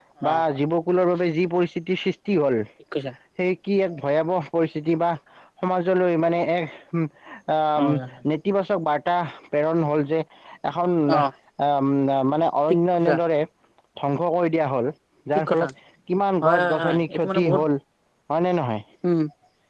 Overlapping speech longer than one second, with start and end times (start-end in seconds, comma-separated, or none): 16.4-17.6